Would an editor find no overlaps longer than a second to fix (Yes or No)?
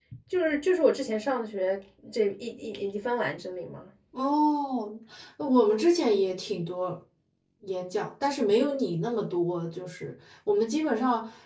Yes